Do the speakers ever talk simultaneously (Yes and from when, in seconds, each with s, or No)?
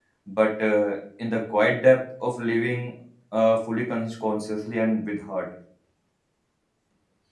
No